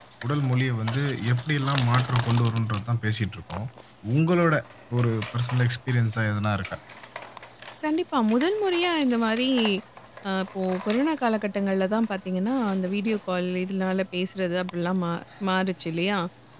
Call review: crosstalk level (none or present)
none